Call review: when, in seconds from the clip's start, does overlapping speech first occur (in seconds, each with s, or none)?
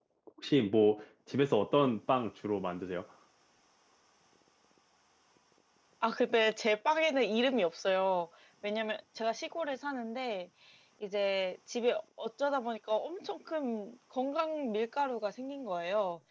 none